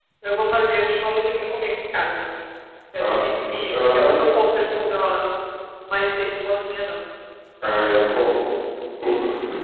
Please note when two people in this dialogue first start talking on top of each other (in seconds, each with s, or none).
3.0 s